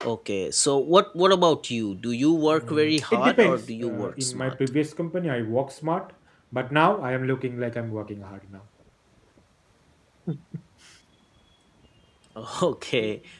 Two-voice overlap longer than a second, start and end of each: 2.5-4.5

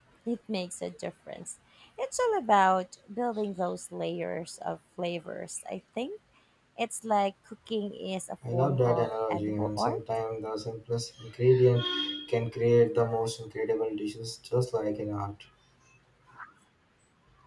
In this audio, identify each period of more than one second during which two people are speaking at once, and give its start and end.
8.5-10.0

